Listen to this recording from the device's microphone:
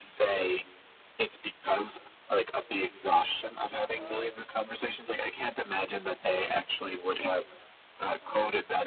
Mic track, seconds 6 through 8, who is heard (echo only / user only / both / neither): echo only